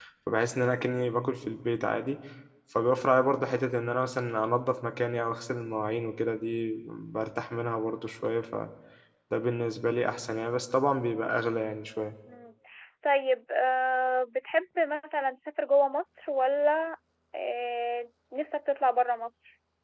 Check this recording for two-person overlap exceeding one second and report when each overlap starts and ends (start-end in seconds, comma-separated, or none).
none